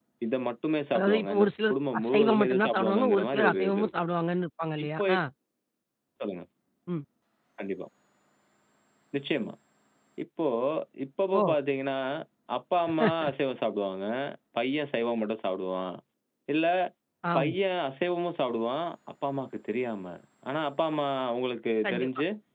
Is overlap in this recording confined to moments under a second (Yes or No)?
No